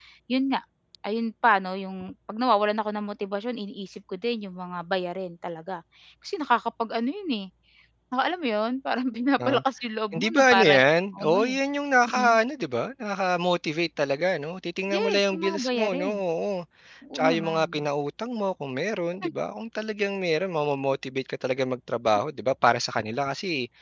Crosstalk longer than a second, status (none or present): present